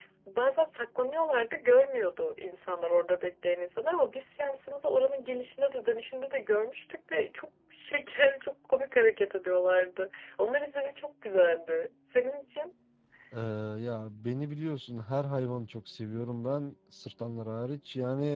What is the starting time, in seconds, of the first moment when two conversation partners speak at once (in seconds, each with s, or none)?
none